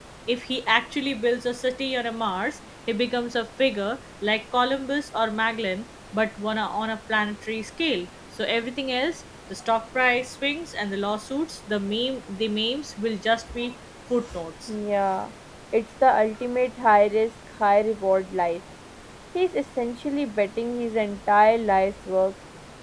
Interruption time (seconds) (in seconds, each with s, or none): none